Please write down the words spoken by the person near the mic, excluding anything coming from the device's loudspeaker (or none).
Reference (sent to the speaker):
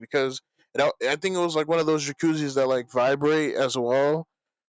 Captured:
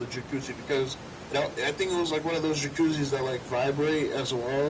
none